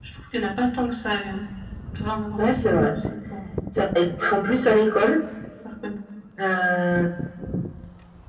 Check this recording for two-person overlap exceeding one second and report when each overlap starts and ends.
none

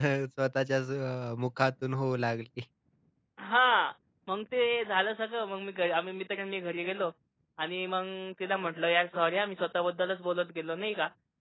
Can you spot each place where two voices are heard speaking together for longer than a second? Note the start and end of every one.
none

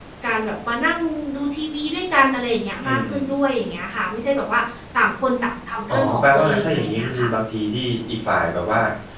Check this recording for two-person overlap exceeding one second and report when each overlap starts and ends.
5.9-7.3

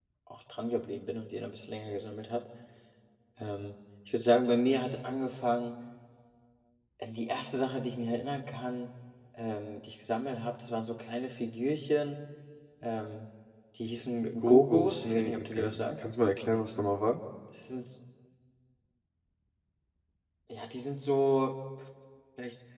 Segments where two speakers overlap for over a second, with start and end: 14.4-16.0

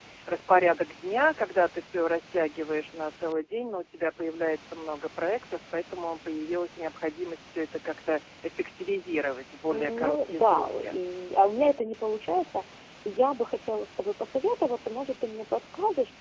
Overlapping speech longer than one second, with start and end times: 9.7-10.9

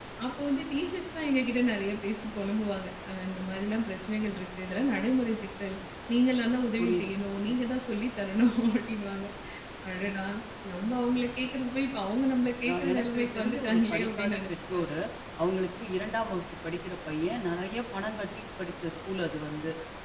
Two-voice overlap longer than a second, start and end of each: 12.7-14.8

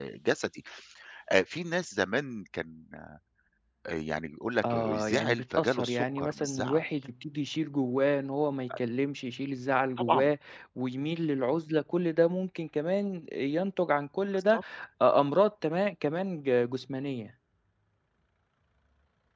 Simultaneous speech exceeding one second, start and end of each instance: 4.7-6.8

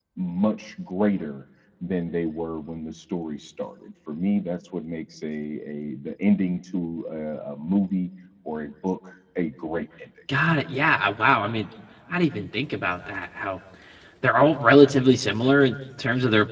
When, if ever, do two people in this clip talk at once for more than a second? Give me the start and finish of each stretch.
none

